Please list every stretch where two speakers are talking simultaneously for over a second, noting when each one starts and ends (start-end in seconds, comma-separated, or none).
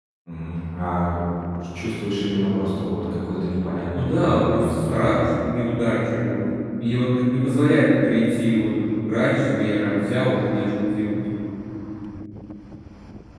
3.9-5.3